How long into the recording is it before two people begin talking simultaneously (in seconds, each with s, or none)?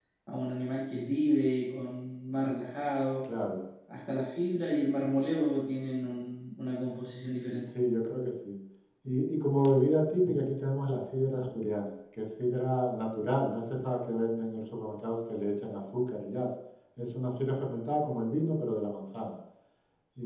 none